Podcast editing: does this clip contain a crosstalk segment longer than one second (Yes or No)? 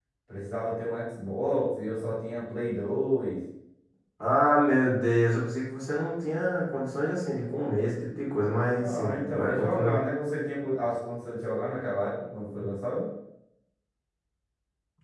Yes